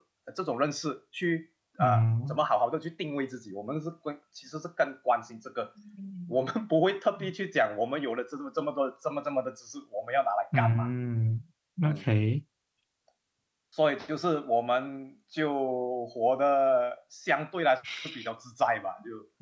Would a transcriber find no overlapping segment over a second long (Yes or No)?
Yes